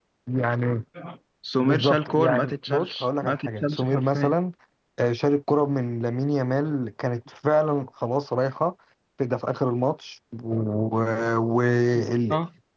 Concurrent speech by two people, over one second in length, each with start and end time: 1.6-4.3

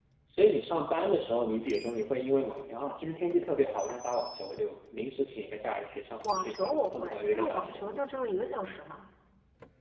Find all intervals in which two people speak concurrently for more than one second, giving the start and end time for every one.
6.4-8.0

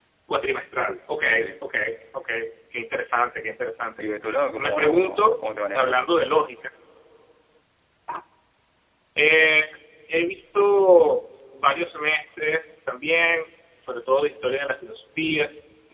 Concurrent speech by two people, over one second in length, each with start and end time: 4.6-6.0

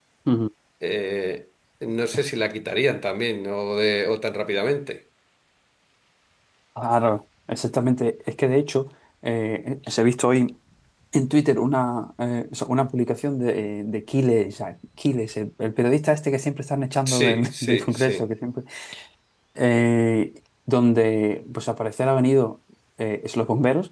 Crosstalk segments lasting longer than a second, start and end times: 17.1-18.3

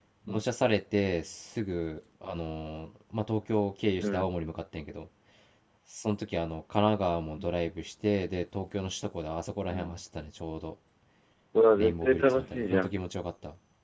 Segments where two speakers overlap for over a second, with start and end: 11.8-13.0

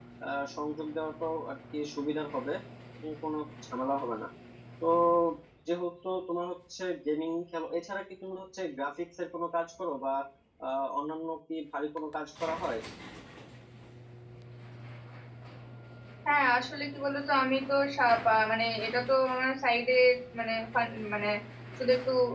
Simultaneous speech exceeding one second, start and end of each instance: none

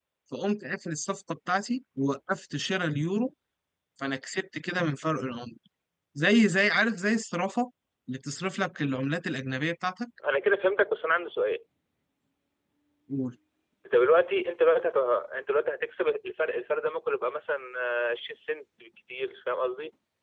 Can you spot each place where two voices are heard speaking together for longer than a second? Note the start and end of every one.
none

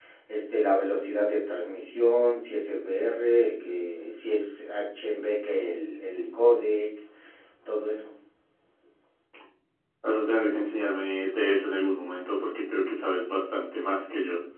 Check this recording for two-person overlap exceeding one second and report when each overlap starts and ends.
none

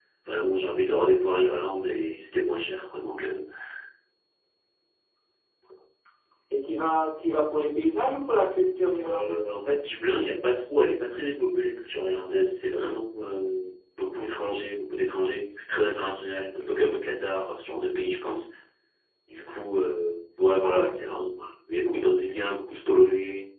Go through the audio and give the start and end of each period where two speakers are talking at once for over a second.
none

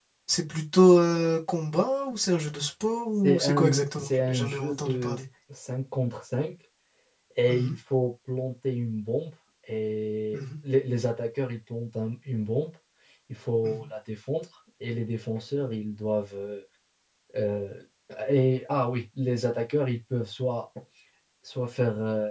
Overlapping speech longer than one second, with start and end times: 3.2-5.2

